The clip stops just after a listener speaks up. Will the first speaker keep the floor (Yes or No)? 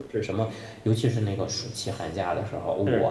Yes